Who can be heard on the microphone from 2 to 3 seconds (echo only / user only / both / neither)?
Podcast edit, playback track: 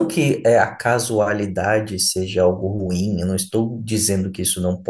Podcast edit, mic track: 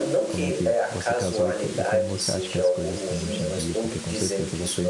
both